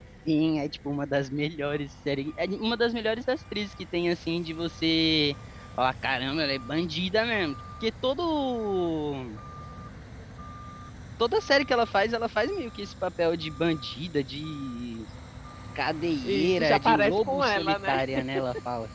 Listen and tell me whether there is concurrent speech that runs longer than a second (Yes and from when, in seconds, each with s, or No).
Yes, from 16.2 s